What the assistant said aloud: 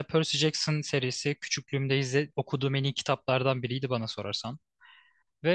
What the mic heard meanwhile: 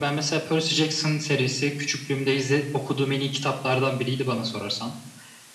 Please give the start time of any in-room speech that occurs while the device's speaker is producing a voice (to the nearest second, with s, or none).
none